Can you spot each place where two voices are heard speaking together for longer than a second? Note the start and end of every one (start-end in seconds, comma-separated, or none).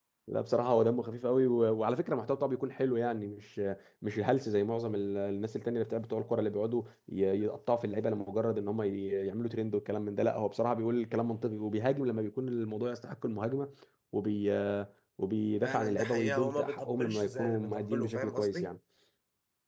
15.6-18.7